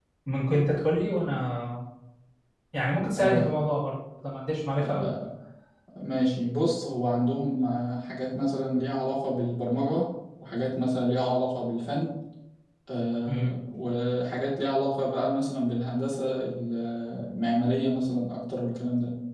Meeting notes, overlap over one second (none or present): none